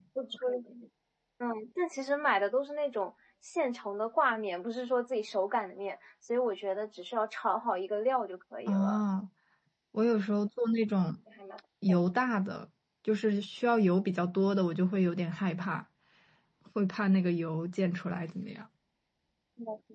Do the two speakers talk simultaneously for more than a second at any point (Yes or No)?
No